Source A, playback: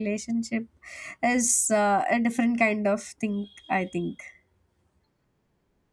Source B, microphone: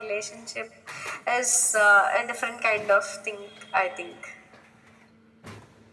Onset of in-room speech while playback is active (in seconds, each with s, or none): none